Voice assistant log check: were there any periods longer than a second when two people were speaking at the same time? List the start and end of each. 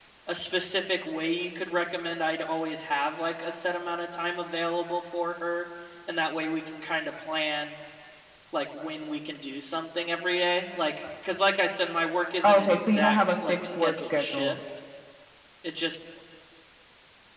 12.4-14.6

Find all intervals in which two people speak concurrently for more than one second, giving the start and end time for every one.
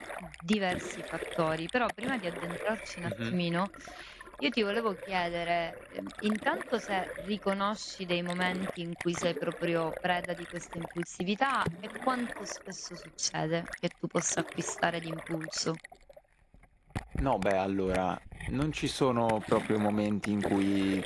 none

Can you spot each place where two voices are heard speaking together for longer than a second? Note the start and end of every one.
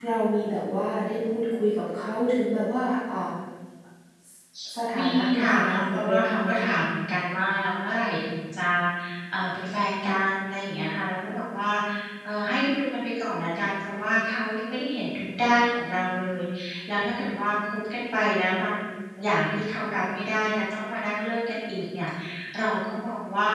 5.1-6.7

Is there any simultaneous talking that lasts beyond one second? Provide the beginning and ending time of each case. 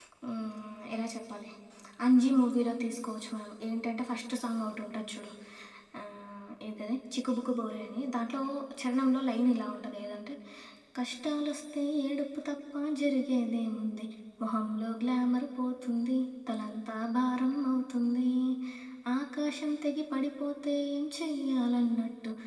none

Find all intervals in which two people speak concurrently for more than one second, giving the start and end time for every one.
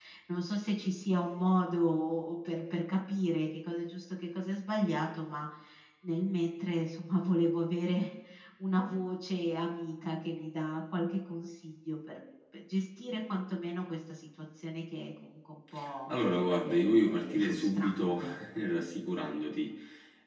16.6-18.3

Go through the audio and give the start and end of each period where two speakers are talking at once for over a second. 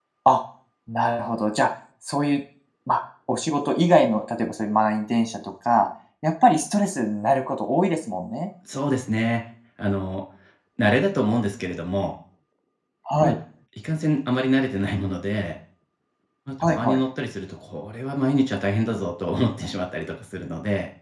none

